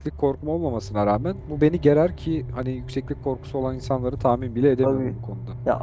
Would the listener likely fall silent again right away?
No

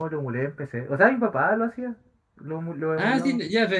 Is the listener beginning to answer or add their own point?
Yes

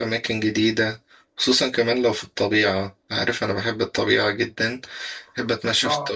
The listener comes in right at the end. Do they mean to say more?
No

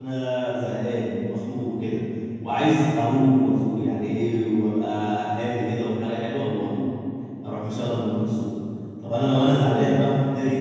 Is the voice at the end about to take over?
No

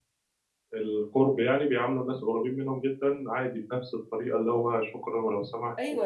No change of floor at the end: No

